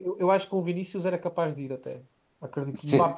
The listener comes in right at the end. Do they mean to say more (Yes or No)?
No